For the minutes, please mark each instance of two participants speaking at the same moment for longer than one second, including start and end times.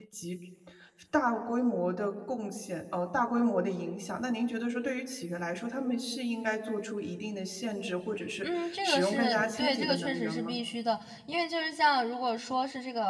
8.4-10.6

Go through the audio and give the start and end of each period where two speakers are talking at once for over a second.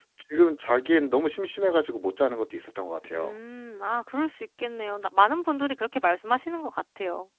none

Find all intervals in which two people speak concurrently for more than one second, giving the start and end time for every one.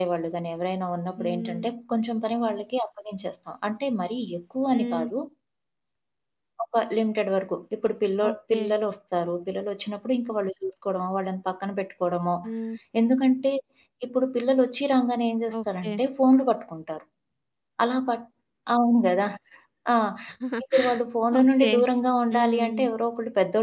none

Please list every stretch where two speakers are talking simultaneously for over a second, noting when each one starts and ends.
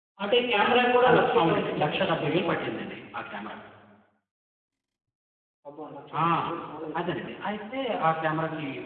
1.1-2.8

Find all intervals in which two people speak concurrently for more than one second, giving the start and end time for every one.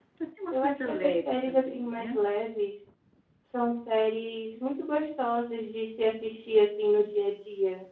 0.5-2.2

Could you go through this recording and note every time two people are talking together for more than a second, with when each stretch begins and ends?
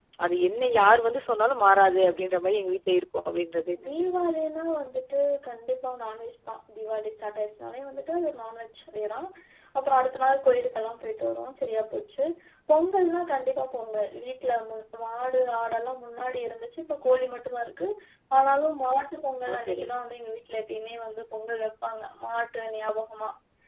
none

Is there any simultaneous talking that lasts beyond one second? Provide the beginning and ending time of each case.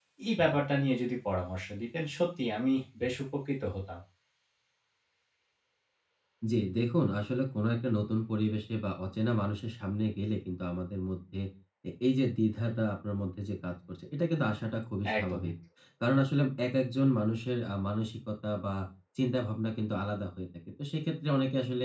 none

